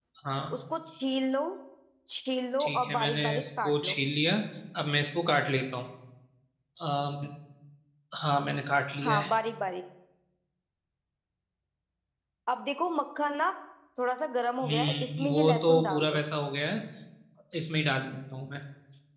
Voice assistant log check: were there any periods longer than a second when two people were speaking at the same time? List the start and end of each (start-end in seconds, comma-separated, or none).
2.6-4.0, 14.6-16.2